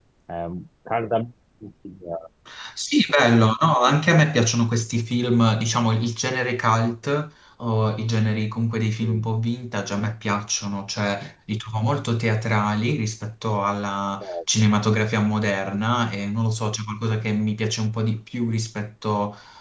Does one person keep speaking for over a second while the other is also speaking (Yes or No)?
No